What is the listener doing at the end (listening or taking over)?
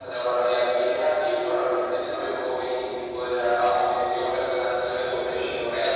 taking over